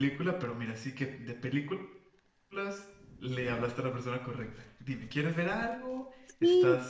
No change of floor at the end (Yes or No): No